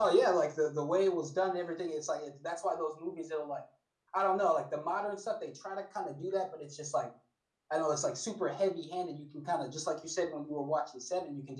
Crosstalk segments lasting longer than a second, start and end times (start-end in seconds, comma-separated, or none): none